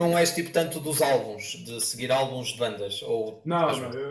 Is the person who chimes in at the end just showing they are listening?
No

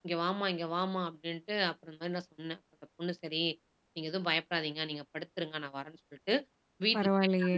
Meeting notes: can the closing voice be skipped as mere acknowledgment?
Yes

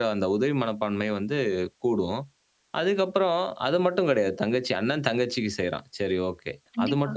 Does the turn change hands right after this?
No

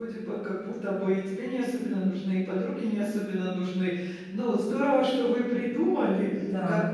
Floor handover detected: No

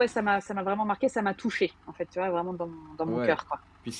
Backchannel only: No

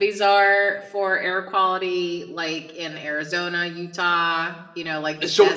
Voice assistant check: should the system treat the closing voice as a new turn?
Yes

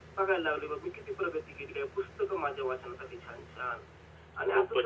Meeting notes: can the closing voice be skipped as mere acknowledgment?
No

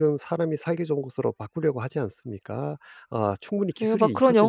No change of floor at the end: No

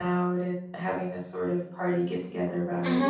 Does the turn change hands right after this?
Yes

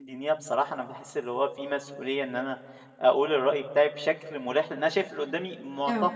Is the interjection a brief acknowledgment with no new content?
Yes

